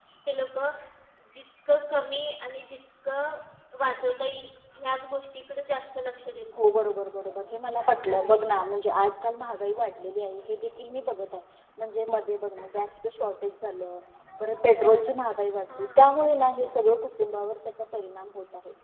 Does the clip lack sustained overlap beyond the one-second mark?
Yes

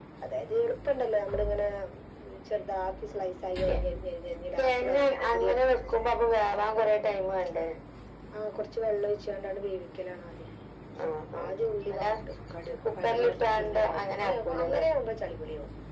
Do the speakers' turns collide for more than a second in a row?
Yes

